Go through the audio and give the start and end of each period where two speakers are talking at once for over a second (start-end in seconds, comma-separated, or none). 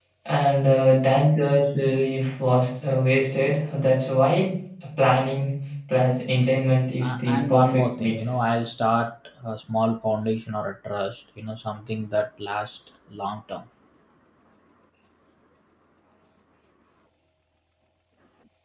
7.0-8.3